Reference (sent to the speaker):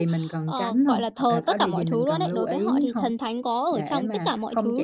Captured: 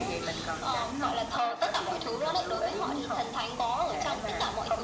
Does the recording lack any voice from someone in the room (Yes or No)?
Yes